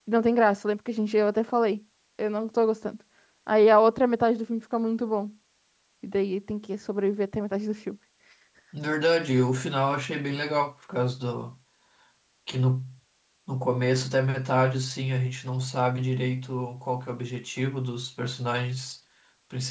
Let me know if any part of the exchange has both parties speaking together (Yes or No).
No